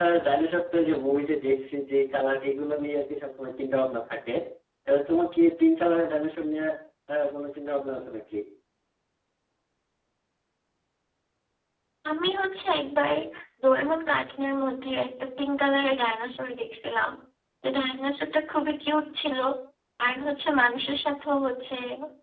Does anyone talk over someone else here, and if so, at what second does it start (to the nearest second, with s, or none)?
none